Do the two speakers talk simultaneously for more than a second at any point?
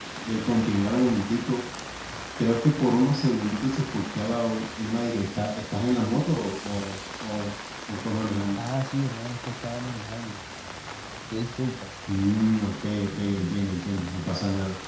No

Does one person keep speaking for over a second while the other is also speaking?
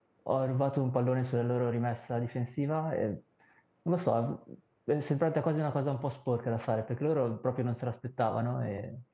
No

